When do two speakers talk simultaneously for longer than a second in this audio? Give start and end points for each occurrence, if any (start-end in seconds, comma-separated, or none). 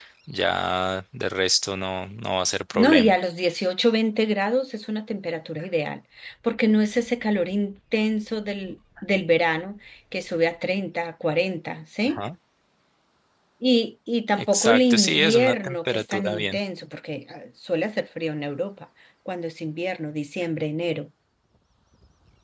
14.3-16.6